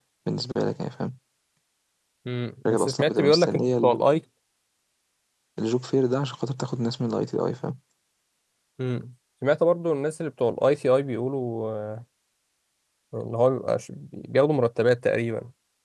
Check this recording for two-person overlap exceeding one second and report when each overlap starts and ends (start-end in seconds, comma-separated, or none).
2.7-4.0